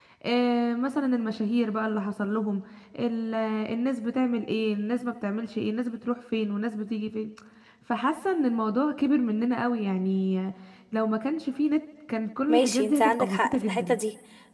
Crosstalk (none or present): present